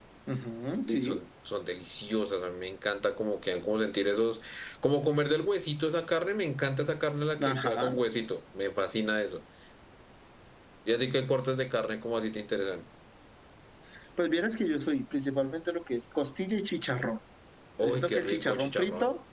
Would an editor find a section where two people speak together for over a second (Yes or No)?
Yes